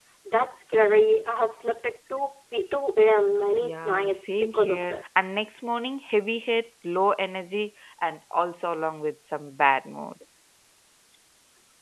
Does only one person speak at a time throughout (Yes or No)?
No